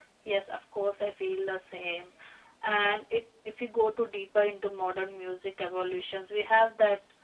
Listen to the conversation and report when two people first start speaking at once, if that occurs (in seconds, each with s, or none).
none